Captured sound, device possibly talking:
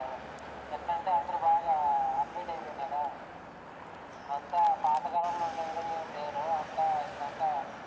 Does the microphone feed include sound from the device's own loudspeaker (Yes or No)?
Yes